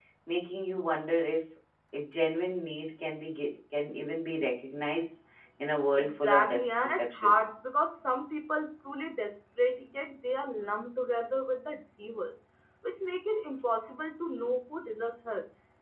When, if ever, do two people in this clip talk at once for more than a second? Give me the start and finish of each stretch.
6.0-7.3

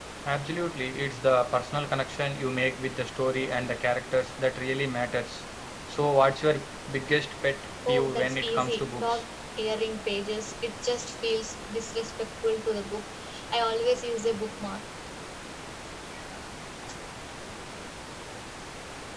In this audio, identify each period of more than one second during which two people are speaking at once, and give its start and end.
7.9-9.2

